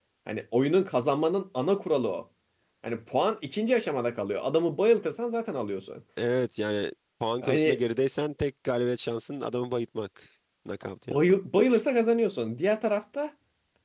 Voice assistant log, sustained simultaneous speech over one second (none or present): none